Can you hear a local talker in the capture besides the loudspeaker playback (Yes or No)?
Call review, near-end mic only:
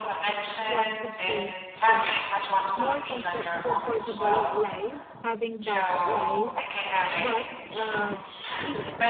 Yes